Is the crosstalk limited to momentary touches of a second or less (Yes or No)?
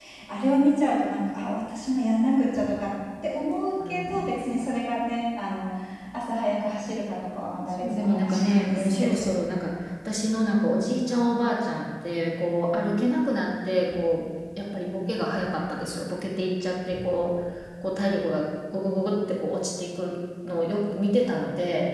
No